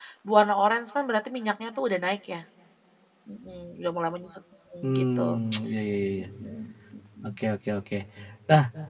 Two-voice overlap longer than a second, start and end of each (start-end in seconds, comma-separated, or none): none